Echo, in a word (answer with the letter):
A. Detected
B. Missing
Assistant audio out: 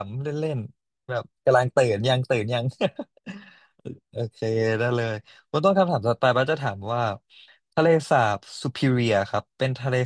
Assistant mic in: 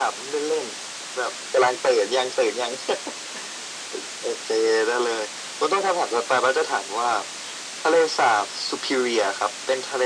A